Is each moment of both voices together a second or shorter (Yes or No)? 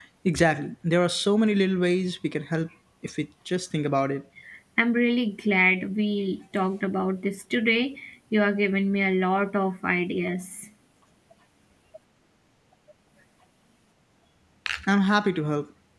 Yes